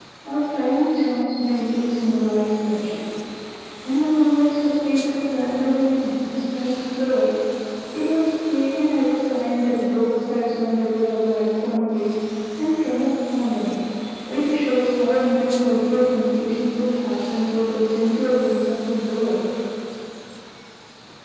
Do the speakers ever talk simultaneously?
No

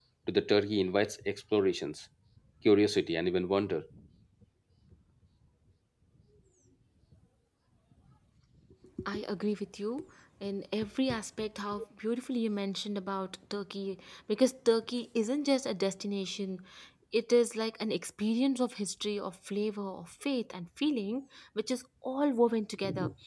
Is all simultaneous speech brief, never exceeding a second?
Yes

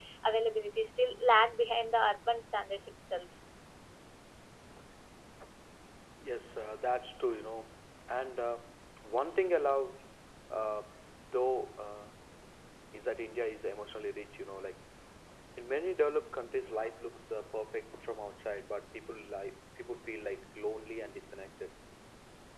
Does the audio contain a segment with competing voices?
No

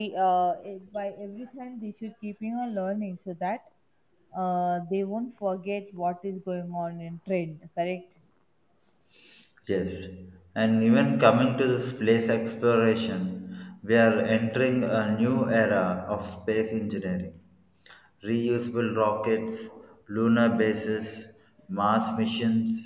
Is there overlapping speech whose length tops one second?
No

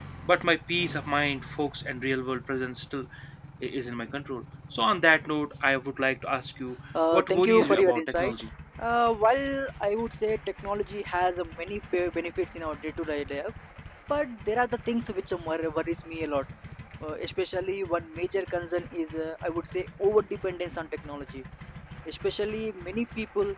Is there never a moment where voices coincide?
No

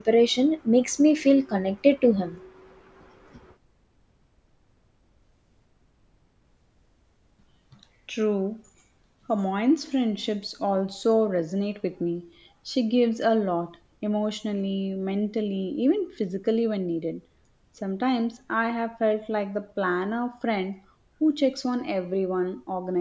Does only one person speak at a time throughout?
Yes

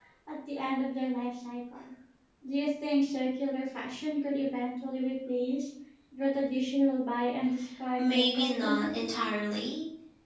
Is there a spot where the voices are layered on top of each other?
Yes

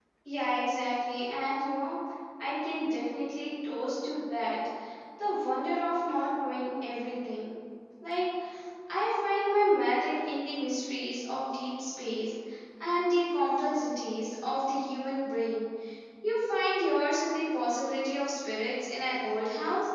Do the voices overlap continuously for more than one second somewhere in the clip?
No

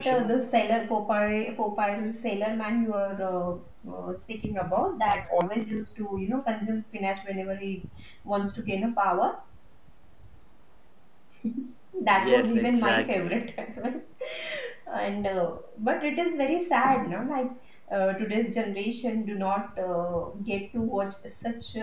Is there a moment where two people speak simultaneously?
Yes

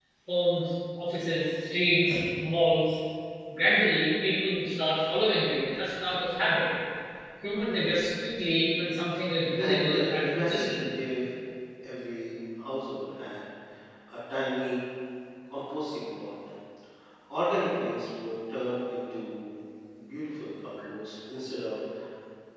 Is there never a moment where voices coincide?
No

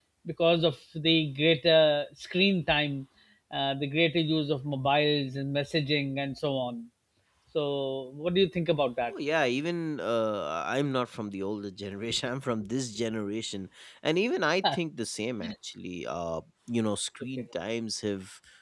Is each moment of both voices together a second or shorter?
Yes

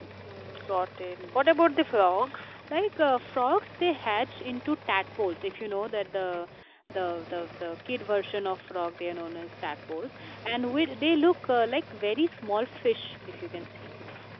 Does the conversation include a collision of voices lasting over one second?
No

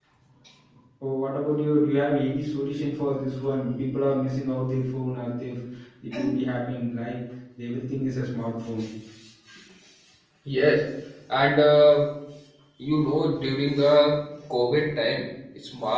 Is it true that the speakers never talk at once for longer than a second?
Yes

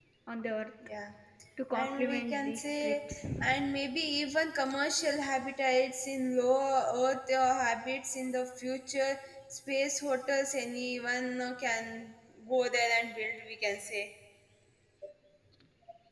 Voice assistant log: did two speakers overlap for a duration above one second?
Yes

